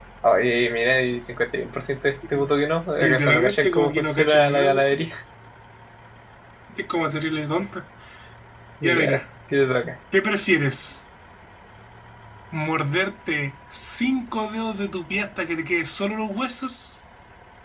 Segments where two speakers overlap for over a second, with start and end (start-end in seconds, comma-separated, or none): 3.0-5.0